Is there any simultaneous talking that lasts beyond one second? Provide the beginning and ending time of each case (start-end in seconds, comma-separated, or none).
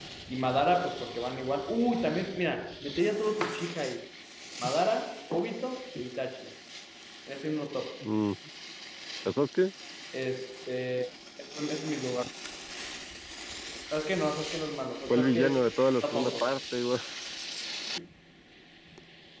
15.1-16.6